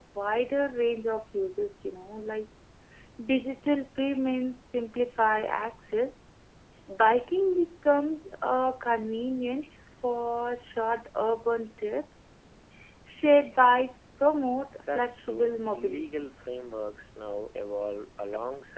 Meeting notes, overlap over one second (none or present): present